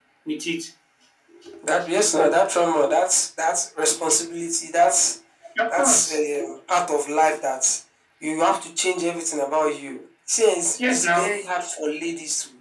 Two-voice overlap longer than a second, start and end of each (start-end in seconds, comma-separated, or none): none